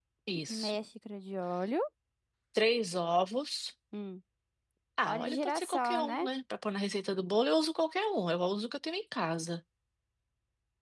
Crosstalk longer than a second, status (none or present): present